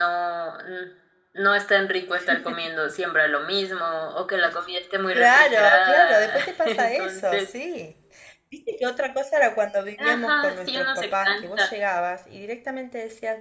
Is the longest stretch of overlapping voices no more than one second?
No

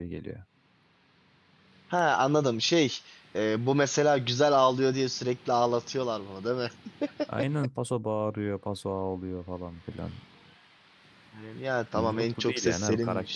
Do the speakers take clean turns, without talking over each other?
No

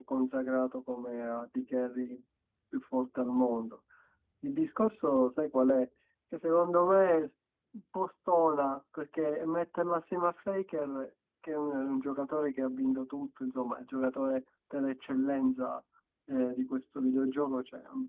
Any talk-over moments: No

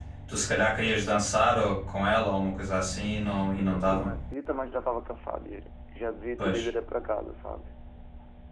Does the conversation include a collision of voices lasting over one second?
No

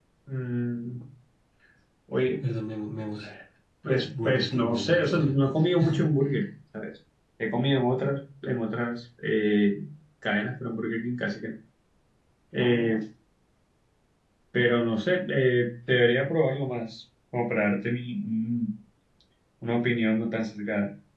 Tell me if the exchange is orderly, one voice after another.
No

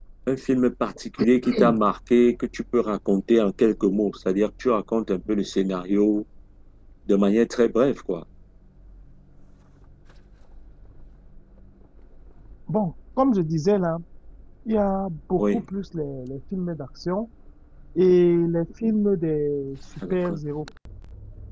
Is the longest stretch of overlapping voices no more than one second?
Yes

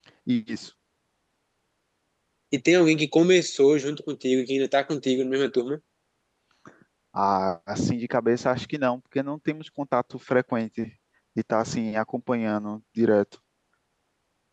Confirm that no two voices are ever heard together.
Yes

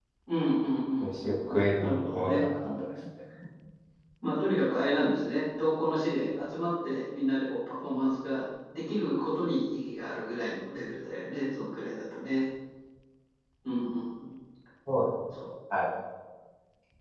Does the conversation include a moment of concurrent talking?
Yes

